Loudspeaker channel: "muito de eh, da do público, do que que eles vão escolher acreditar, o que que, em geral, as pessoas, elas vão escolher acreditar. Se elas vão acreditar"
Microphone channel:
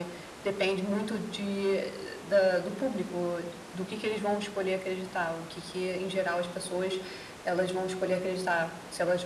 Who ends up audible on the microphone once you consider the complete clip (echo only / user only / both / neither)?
echo only